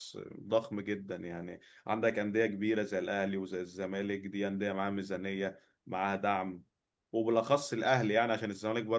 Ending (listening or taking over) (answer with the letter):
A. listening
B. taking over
A